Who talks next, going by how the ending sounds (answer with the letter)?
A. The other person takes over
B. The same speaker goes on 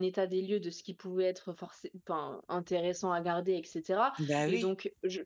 B